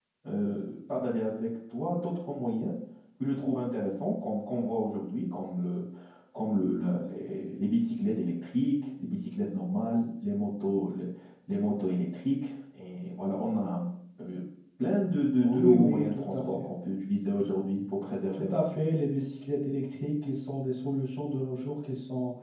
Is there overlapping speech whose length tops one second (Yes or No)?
Yes